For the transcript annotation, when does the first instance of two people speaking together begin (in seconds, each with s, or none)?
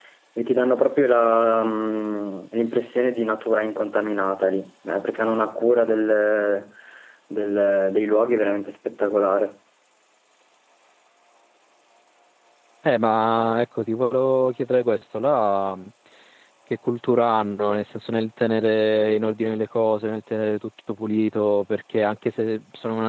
none